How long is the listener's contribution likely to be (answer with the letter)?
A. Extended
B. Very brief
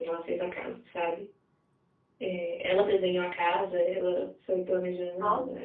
B